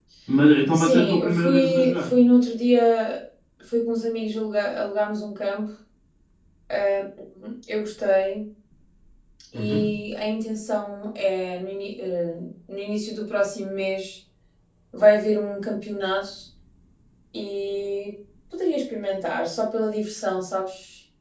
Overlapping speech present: Yes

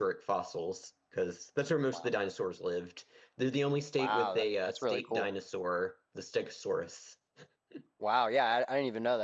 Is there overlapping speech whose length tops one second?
Yes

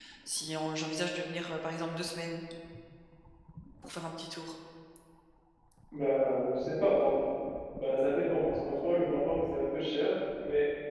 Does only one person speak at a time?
Yes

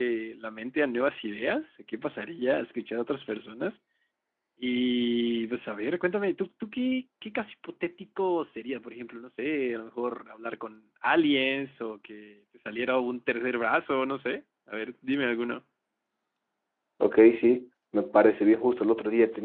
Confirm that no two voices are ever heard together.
Yes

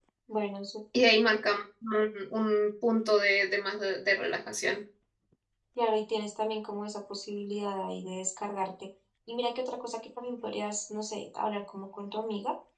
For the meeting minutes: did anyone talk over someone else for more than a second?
No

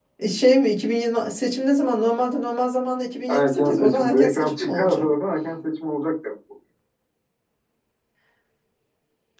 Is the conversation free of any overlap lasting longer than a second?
No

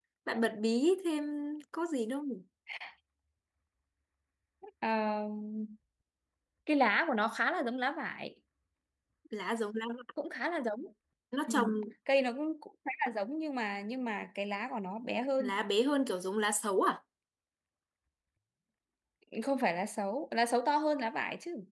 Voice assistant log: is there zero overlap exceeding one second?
Yes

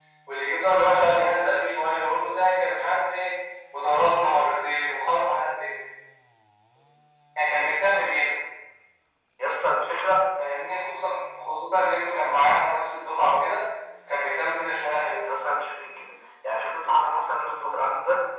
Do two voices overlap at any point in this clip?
No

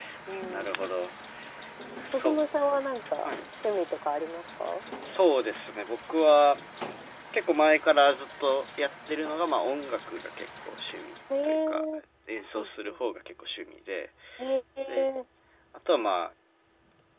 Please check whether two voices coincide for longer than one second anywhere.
No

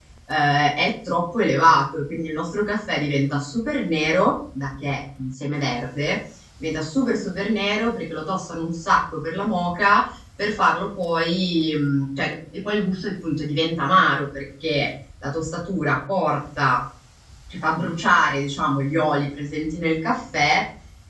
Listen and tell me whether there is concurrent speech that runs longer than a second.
No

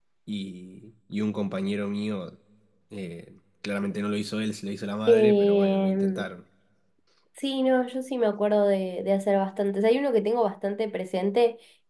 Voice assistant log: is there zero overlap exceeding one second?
No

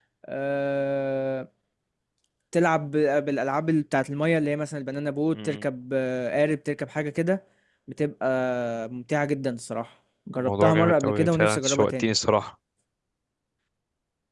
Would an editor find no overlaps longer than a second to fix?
No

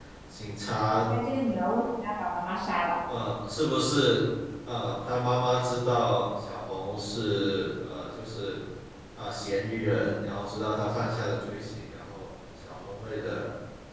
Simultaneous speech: No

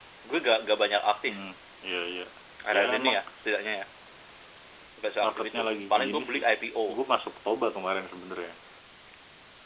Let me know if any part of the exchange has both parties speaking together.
Yes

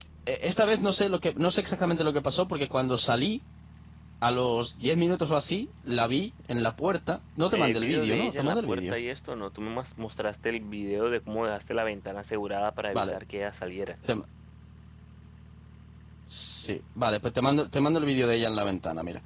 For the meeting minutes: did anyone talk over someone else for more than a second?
Yes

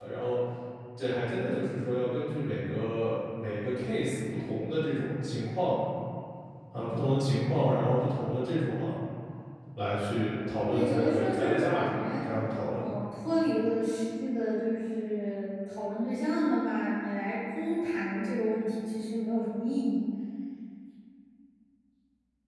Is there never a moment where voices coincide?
No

